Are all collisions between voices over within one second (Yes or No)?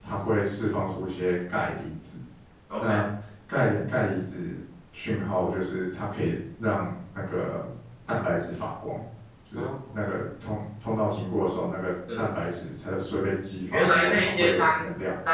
No